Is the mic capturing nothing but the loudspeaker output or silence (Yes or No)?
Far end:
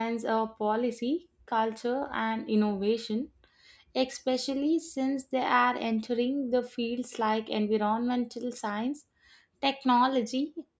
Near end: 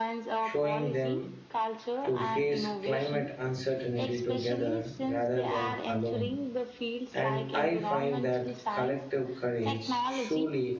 No